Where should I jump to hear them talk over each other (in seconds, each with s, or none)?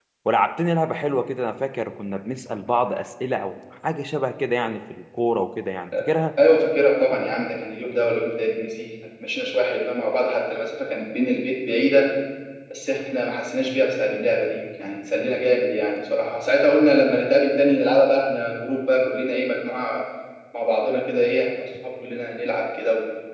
none